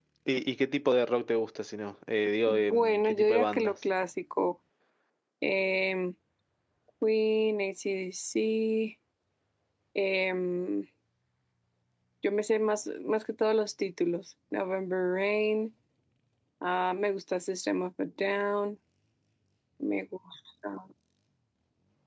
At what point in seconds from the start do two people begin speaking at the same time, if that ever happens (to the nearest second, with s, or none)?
2 s